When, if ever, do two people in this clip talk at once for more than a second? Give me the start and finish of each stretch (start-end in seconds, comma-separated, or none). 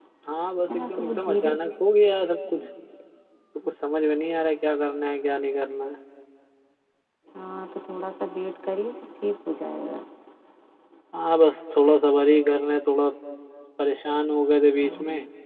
0.7-2.1